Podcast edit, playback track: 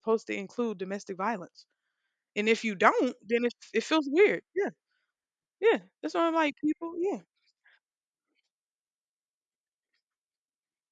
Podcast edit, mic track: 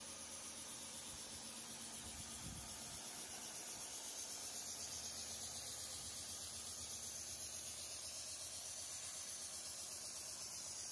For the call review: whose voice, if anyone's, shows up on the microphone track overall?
neither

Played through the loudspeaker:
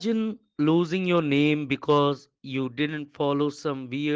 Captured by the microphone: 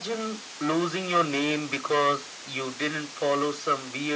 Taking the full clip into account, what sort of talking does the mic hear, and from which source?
echo only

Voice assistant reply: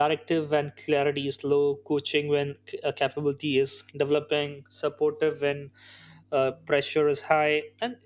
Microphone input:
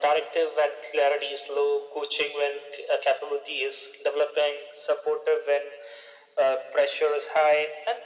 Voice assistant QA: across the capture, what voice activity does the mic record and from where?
echo only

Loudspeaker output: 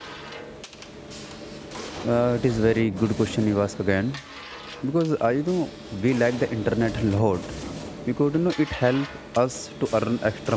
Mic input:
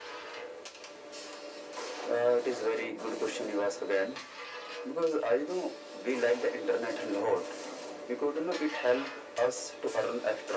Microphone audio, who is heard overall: echo only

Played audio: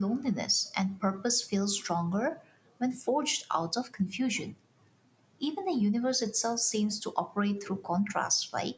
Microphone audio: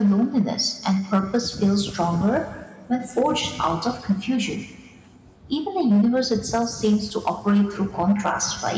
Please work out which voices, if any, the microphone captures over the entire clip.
echo only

